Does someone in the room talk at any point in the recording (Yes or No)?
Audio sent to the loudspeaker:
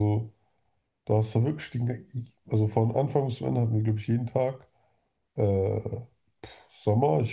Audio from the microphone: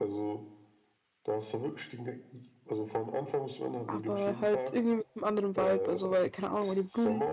Yes